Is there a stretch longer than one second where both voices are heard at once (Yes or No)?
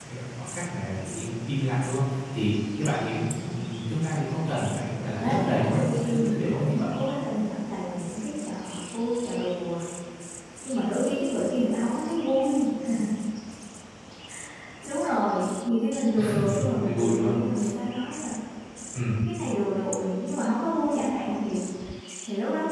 Yes